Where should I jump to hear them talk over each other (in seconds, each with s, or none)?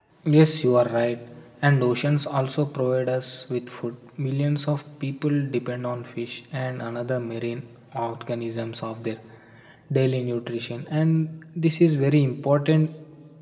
none